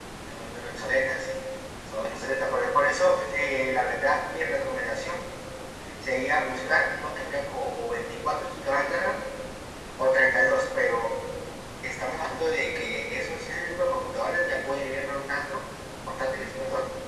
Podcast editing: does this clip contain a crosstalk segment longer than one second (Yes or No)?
No